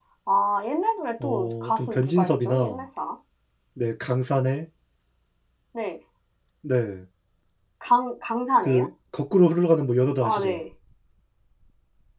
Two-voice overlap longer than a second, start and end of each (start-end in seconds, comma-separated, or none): 1.2-2.8